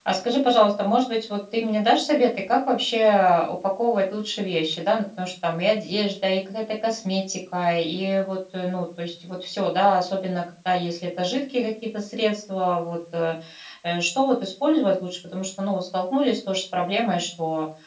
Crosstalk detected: No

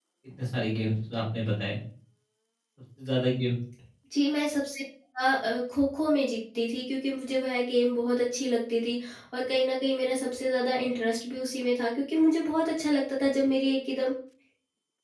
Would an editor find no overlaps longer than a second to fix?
Yes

